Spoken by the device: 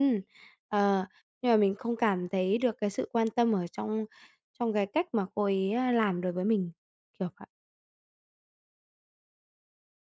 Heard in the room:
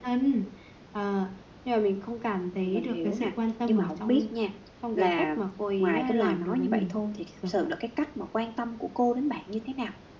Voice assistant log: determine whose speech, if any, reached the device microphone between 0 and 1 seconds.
echo only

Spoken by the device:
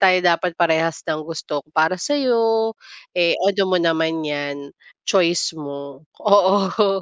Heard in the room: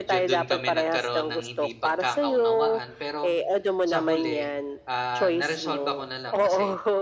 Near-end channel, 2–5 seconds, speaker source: both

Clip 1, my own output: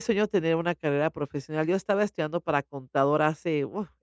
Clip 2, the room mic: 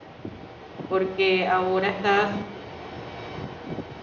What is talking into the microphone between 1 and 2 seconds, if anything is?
user only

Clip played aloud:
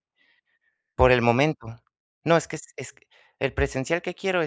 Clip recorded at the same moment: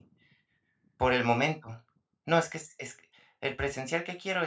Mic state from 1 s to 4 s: echo only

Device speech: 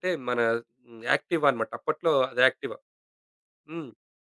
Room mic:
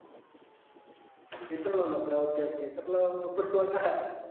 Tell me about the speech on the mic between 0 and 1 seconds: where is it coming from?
neither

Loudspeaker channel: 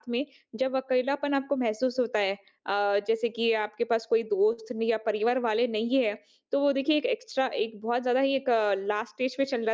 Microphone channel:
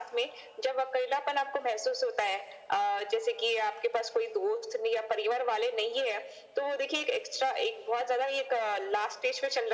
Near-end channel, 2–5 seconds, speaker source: echo only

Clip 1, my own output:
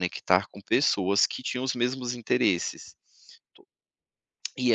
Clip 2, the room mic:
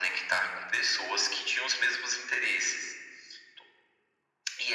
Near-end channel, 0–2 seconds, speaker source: echo only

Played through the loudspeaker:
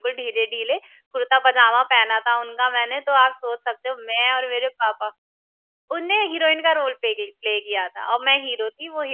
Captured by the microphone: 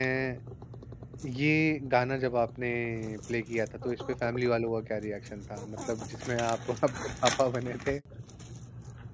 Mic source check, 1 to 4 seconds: user only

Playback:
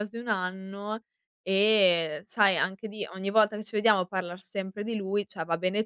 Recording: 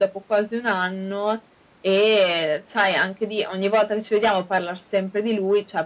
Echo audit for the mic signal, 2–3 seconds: echo only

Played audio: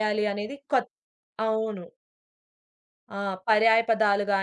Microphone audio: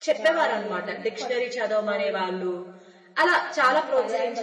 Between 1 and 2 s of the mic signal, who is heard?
both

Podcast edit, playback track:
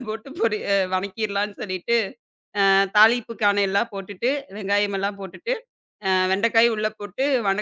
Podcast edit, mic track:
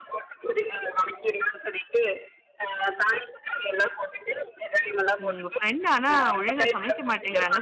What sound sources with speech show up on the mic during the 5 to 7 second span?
both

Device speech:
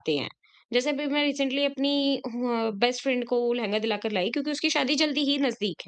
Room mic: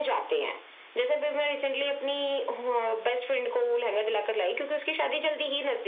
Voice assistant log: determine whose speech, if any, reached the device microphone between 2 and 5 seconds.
echo only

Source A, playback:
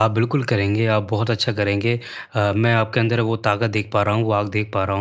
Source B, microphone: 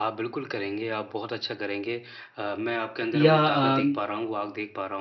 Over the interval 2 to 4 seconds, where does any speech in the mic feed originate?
both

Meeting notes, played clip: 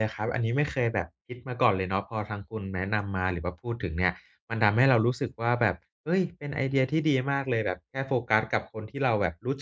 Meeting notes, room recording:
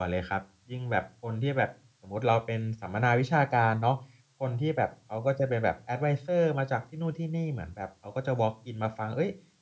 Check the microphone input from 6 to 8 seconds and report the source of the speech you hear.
user only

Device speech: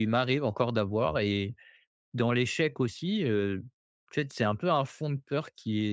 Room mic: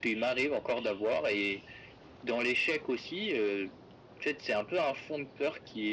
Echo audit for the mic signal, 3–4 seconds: echo only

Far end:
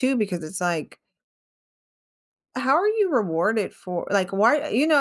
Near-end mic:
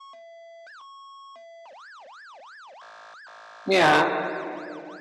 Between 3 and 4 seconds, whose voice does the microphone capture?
user only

